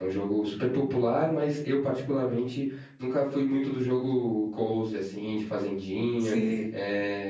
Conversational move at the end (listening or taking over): listening